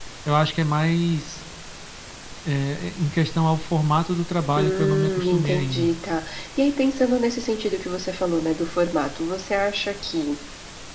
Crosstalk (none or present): present